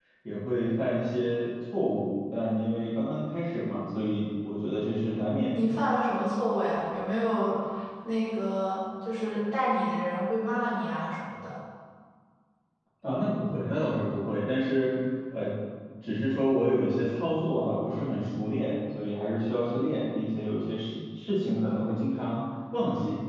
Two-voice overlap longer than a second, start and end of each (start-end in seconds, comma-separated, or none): none